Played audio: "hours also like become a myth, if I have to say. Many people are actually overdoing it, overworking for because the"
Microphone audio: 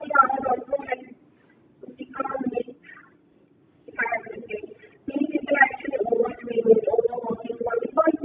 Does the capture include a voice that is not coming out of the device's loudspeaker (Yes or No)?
No